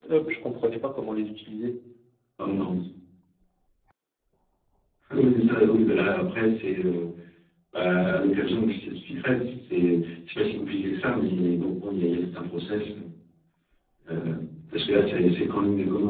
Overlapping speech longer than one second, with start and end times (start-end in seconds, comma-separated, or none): none